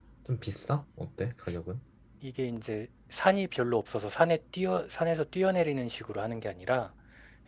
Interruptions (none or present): none